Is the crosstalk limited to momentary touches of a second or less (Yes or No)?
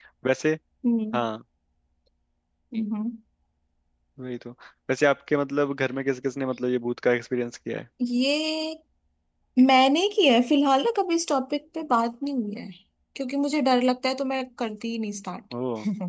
Yes